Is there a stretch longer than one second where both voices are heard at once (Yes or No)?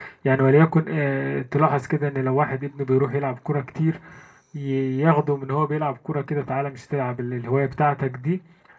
No